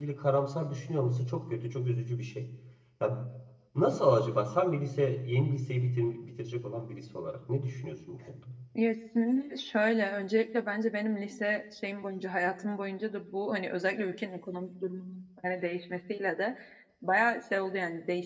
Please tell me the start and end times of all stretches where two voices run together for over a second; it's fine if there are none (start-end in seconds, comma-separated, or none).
none